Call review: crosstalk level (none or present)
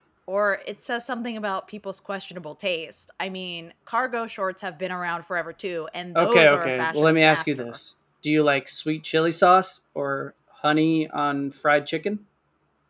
present